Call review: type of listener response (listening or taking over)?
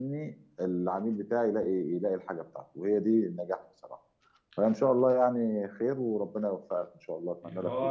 taking over